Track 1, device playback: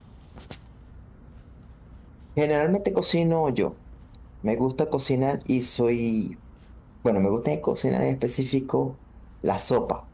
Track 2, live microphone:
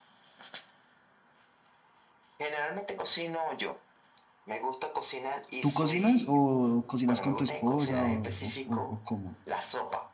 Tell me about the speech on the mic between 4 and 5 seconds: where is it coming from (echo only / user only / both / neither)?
echo only